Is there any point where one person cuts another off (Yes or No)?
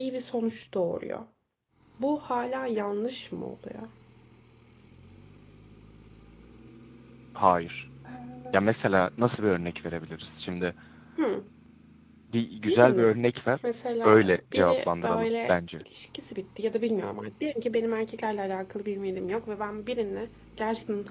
Yes